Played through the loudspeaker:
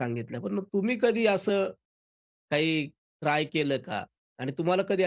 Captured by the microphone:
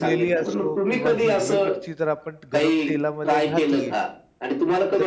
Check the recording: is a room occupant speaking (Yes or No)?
Yes